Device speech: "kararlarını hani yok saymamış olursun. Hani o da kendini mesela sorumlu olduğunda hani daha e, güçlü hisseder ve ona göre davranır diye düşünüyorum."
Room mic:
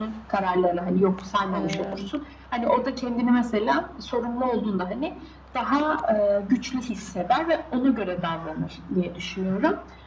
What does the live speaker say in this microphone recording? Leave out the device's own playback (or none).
Eee